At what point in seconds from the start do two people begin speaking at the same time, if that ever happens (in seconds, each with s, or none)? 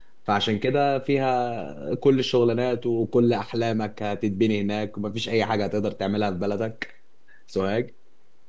none